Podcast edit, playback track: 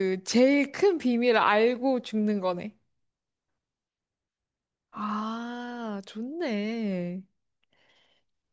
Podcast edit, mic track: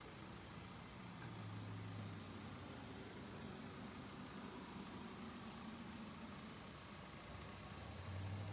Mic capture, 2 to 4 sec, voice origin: neither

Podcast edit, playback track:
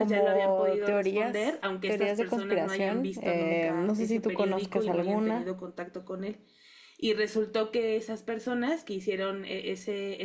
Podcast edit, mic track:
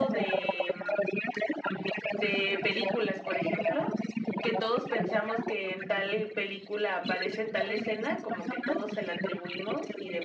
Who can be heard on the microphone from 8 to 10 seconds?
both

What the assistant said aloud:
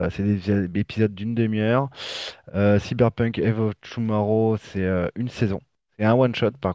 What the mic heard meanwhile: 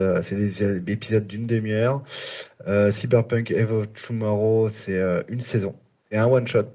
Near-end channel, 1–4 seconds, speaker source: echo only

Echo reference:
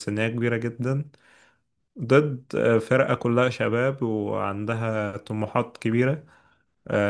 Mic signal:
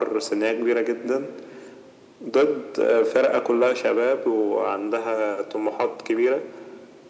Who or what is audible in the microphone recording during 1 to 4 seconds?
echo only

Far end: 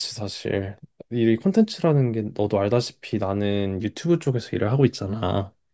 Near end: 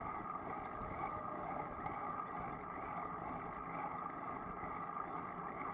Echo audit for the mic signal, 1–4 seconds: neither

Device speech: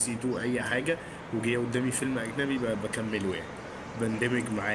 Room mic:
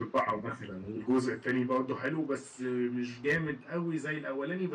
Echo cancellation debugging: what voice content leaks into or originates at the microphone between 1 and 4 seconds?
user only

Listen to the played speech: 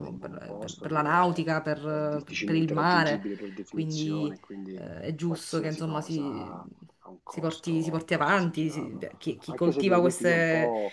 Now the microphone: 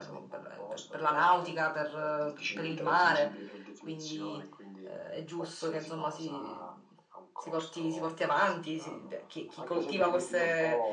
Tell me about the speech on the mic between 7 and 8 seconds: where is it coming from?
echo only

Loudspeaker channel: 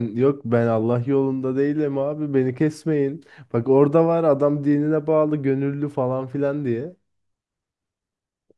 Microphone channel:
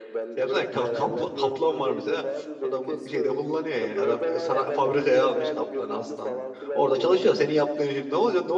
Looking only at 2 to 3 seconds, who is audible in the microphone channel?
both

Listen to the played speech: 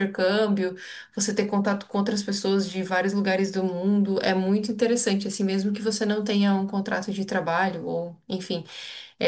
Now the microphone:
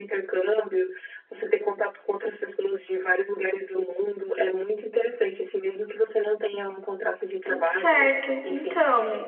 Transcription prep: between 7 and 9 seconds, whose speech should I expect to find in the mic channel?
both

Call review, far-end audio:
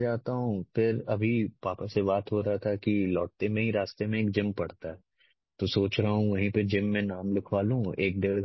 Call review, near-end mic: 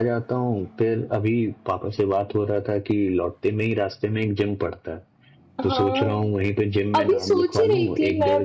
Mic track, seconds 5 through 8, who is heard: both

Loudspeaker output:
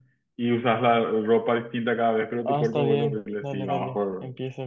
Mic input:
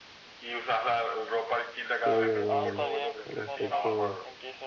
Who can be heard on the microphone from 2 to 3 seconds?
both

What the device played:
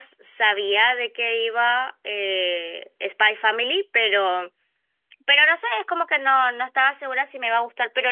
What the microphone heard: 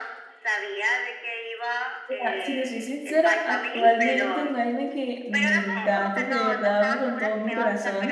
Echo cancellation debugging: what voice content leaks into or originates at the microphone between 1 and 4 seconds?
both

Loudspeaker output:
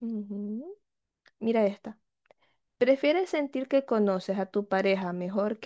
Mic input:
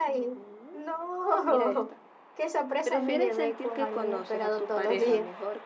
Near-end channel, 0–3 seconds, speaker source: both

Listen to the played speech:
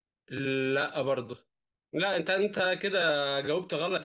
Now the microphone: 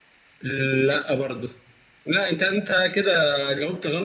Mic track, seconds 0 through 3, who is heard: echo only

